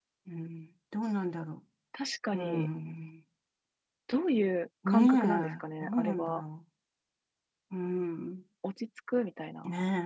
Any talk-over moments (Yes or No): Yes